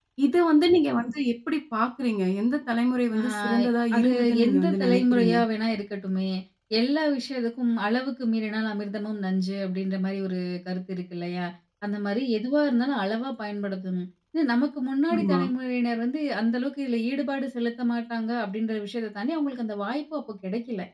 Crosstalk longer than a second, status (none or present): present